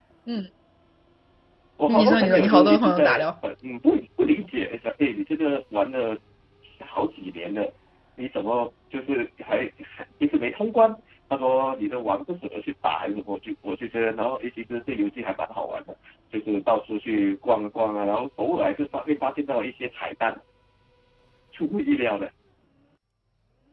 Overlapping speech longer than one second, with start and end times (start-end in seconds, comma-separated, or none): 1.9-3.2